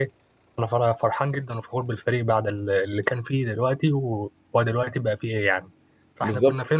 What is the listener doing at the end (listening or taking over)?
taking over